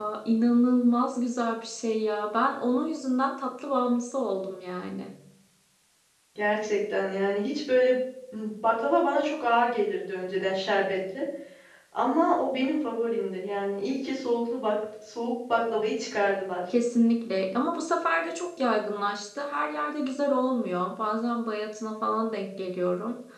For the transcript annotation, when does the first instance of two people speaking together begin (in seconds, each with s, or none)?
none